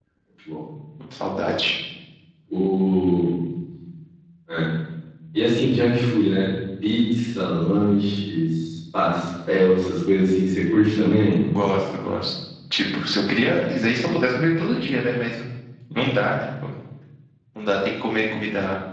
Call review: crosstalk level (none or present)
none